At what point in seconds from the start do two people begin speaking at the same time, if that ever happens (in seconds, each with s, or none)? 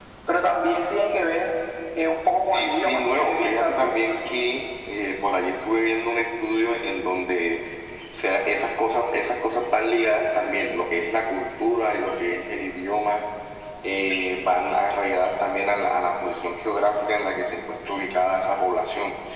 2.4 s